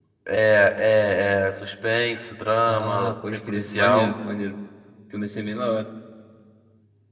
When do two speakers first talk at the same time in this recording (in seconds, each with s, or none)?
2.7 s